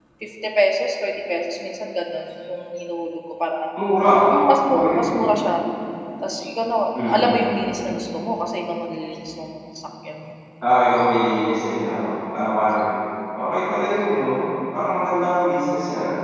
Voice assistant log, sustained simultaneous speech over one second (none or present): none